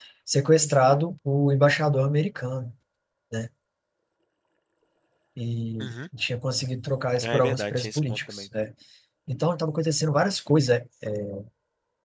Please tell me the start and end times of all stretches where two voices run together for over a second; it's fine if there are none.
7.2-8.5

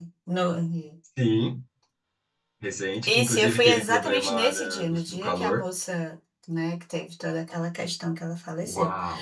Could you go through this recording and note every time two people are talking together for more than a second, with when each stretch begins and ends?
3.1-5.6

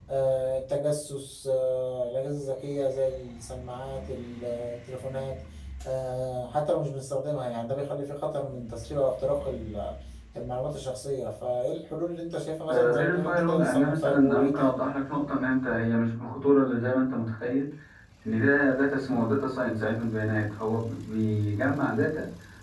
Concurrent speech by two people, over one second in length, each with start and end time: 12.7-14.8

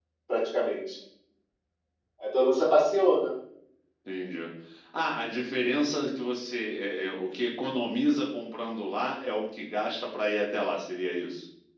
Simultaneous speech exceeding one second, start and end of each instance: none

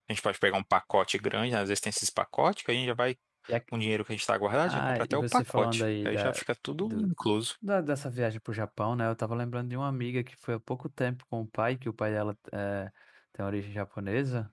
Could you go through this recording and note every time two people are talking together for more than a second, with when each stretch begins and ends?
4.7-6.4

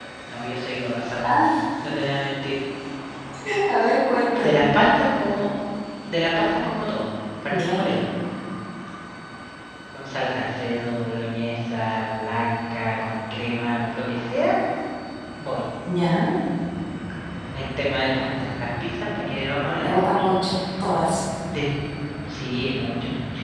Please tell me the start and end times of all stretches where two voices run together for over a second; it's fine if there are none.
none

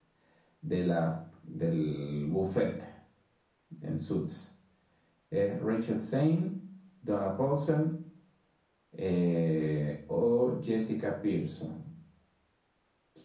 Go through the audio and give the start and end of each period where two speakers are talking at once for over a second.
none

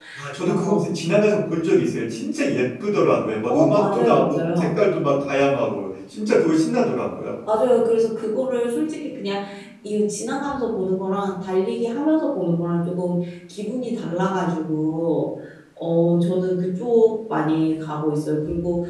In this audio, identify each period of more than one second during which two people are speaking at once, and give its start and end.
3.5-4.8

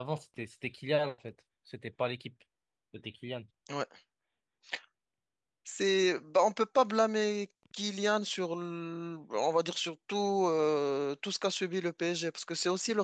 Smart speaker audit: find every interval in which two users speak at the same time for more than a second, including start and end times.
none

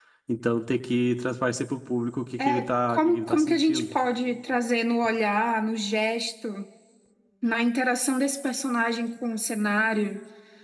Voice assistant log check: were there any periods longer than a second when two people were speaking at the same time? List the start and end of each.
2.4-3.8

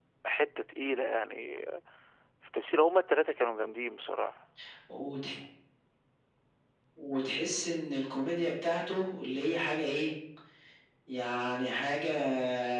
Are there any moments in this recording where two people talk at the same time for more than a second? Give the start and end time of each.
none

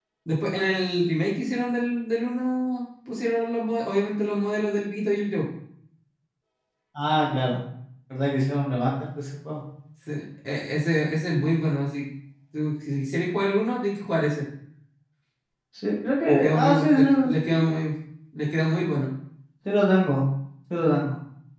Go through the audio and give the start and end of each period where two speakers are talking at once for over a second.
16.2-17.6

